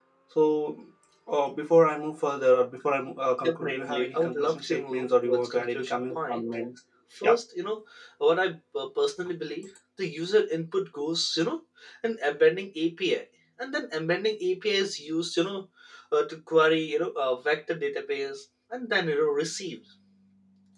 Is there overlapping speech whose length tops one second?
Yes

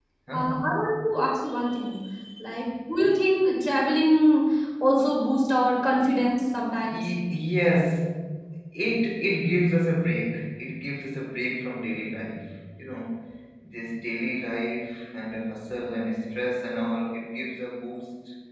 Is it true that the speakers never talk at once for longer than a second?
Yes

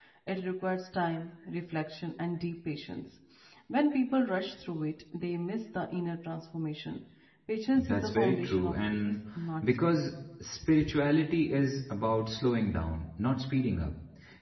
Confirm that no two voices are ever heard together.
No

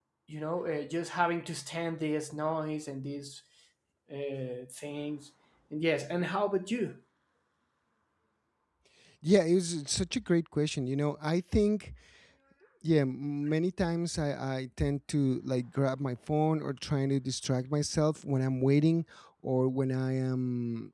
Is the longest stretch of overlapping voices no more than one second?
Yes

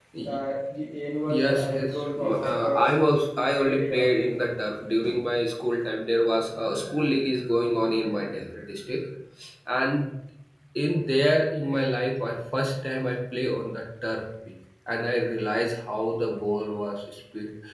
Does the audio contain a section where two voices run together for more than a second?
Yes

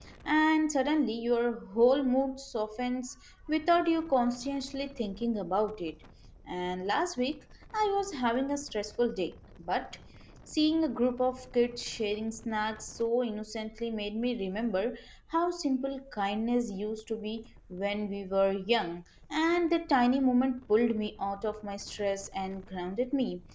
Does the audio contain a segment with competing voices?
No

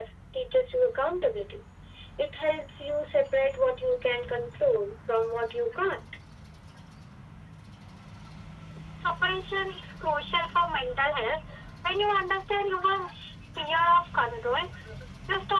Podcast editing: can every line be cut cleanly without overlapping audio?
Yes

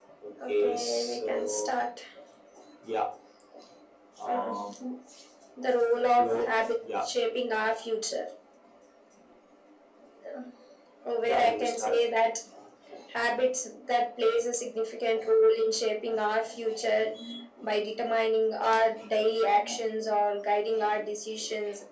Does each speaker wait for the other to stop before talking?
No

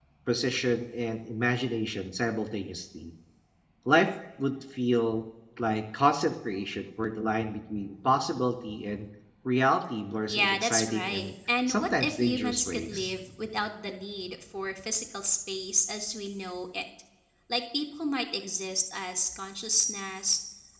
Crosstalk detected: Yes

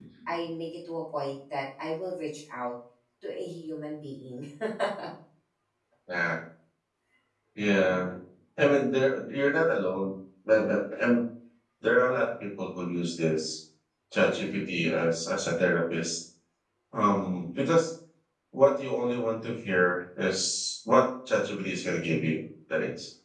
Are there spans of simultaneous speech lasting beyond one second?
No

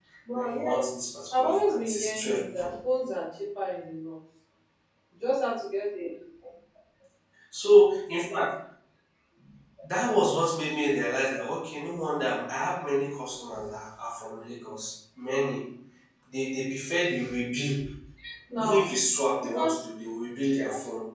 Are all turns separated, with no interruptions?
No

